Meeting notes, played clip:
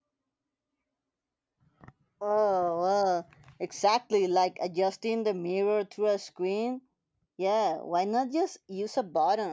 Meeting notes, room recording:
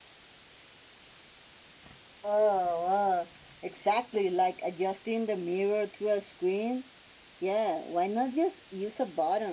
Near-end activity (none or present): none